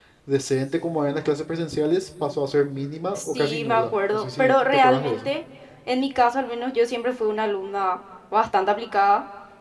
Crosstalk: present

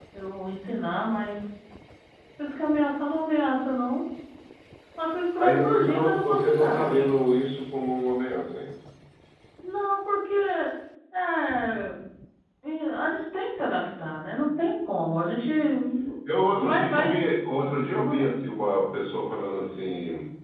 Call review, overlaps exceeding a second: present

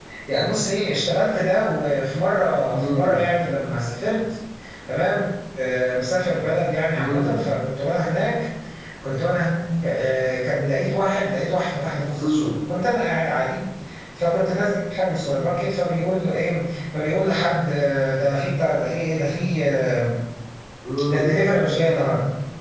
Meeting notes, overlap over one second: none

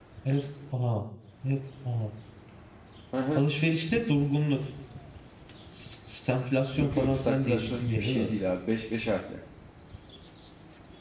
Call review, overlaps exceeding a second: present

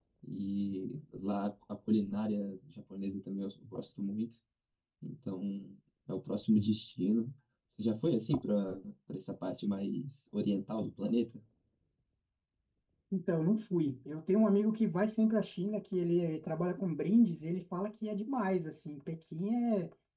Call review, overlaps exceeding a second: none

